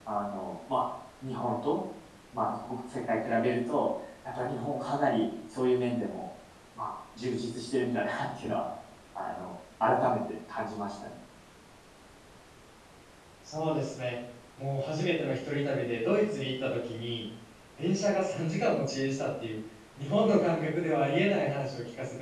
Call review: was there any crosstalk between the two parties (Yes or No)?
No